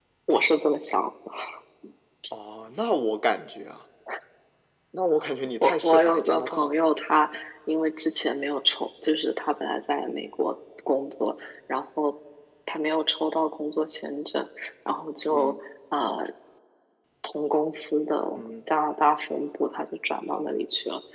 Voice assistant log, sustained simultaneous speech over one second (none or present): present